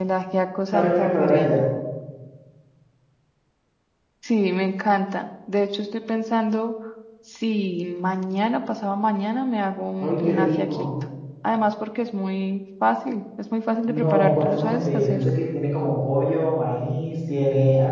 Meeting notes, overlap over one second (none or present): present